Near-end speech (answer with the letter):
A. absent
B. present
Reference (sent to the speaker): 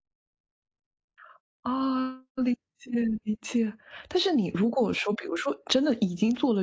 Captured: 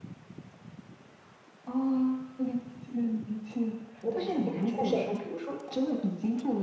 B